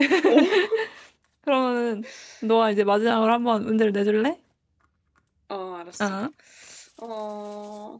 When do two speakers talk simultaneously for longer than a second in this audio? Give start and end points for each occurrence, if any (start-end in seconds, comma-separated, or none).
none